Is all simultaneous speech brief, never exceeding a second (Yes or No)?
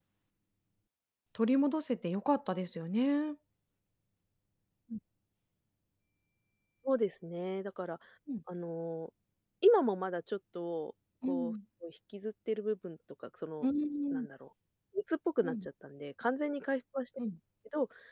Yes